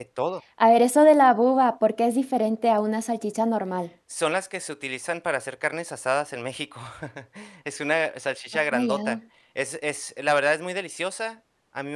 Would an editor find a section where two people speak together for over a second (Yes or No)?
No